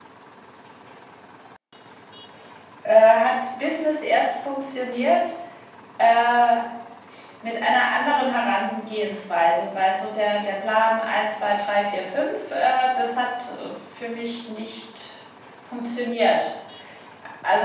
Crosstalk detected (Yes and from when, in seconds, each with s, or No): No